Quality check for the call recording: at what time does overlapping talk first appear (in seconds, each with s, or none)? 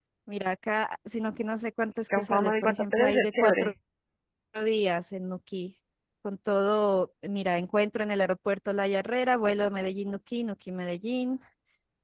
2.1 s